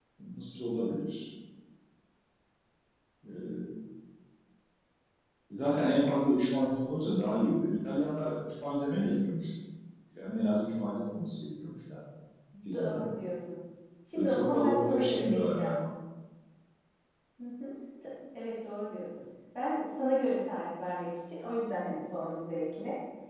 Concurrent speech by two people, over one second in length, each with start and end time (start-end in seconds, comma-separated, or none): 14.1-15.7